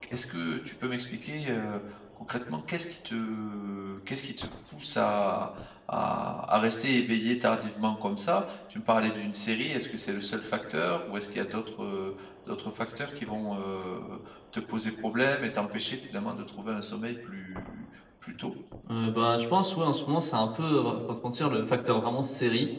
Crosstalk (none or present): none